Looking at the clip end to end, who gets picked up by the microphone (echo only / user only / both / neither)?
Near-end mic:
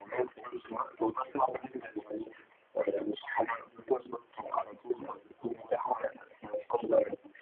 echo only